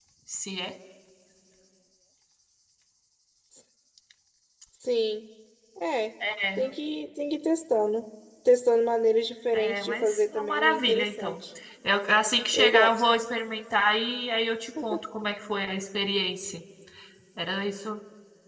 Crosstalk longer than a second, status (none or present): present